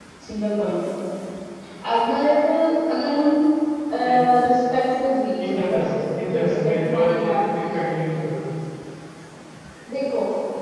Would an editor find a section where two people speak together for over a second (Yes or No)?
Yes